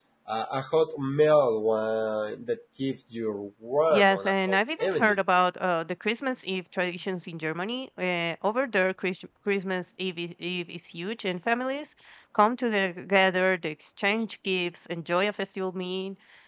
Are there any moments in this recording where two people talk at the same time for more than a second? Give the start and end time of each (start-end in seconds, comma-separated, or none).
3.9-5.2